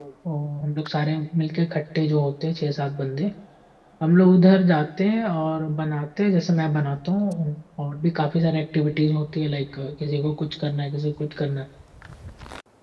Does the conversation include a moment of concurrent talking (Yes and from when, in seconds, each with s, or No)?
No